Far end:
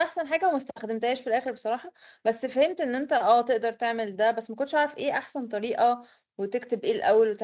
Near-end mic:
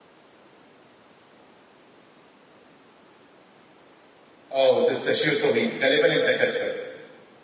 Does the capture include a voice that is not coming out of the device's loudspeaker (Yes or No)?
Yes